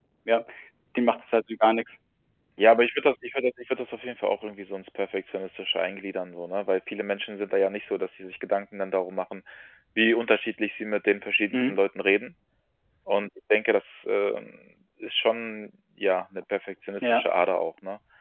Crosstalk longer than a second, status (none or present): none